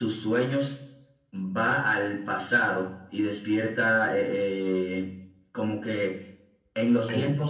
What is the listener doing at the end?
listening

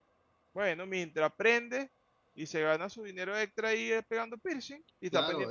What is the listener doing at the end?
taking over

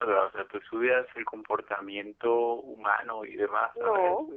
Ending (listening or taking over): taking over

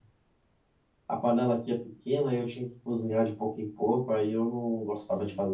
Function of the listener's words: taking over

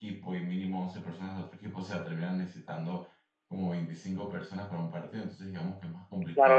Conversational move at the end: taking over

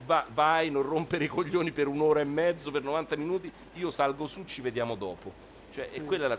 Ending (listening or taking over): listening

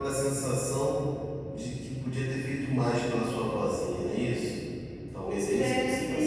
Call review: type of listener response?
taking over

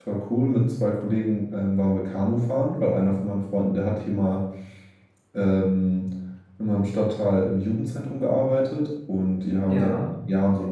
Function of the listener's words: listening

